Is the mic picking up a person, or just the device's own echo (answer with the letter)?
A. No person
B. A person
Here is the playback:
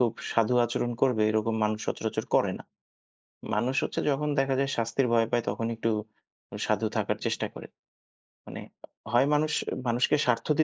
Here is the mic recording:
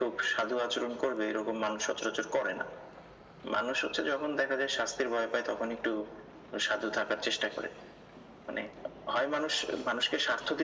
A